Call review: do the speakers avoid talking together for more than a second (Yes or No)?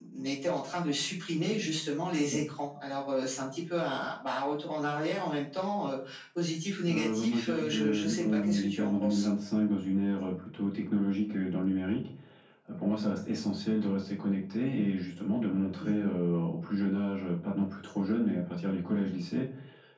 No